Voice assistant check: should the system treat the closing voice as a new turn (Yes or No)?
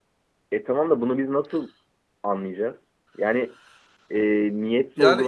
Yes